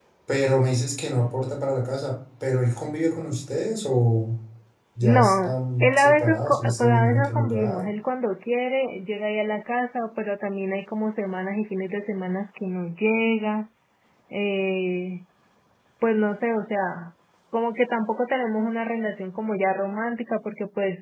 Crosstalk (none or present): present